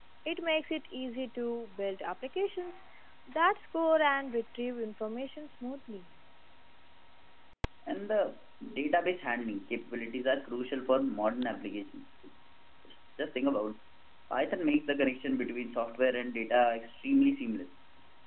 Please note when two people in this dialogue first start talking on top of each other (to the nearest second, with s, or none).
none